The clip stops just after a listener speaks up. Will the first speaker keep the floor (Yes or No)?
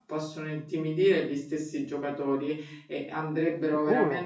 Yes